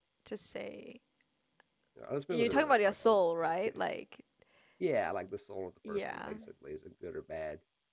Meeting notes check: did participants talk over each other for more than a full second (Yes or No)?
Yes